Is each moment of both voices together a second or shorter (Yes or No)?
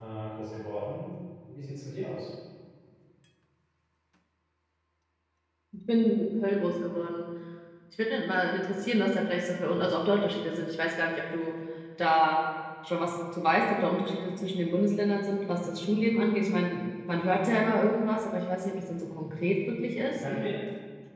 Yes